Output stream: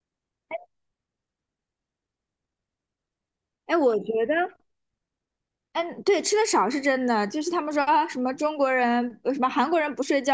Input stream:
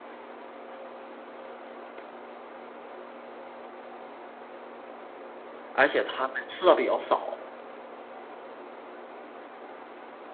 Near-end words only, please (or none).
而且他们吃的比较少。